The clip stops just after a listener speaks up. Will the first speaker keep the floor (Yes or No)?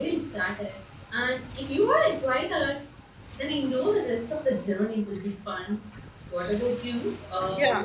Yes